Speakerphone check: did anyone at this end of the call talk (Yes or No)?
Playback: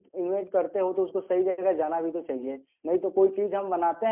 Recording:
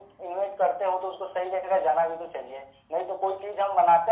No